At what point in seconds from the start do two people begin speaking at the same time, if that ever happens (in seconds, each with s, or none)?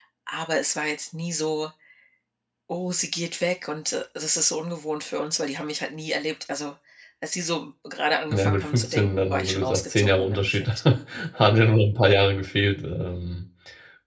8.3 s